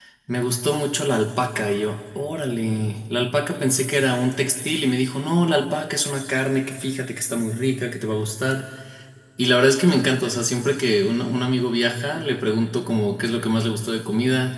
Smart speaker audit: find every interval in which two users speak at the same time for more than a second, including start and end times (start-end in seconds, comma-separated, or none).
none